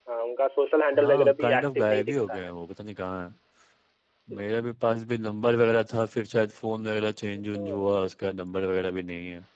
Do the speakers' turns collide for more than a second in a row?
Yes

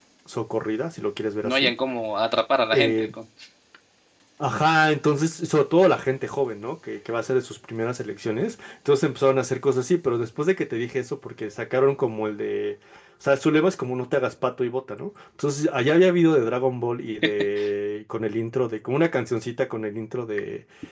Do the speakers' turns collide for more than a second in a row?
No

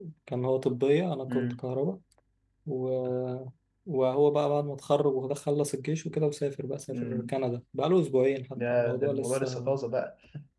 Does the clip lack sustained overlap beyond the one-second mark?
No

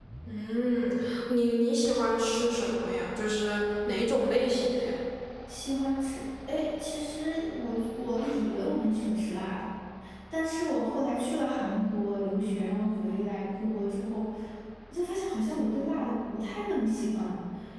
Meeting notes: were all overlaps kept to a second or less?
Yes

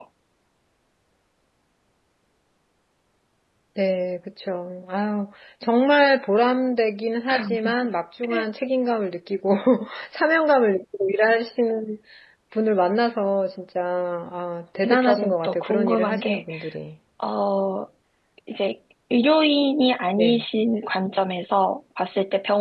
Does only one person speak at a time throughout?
No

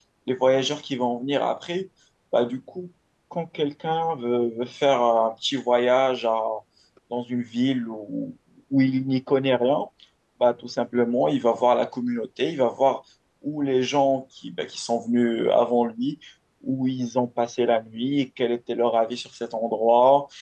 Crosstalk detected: No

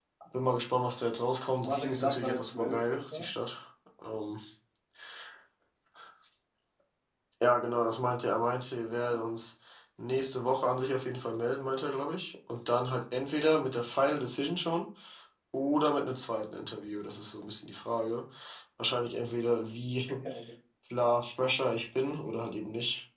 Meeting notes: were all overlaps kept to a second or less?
No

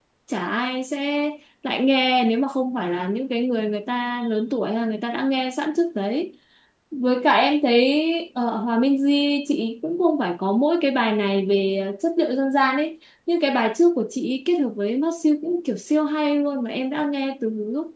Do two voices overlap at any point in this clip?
No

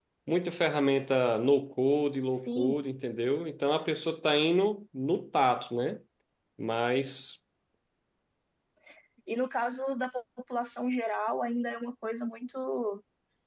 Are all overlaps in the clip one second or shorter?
Yes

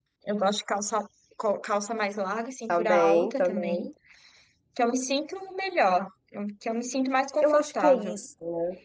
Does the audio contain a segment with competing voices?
Yes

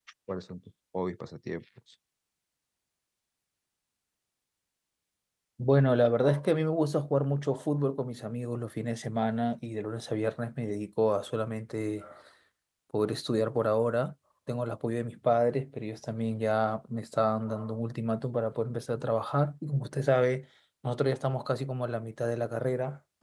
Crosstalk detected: No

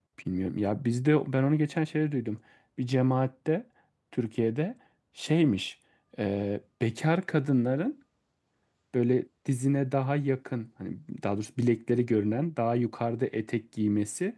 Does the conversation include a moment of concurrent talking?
No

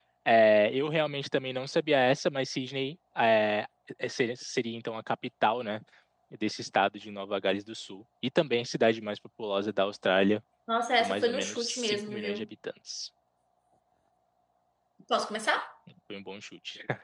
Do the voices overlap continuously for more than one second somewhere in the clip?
Yes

